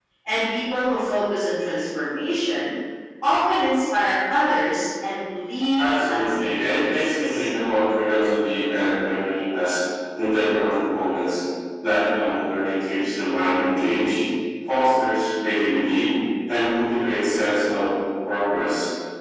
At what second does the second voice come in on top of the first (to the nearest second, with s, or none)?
6 s